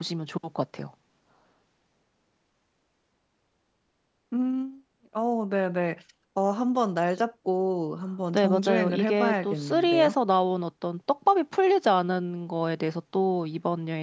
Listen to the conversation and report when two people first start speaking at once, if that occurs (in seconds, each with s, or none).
8.3 s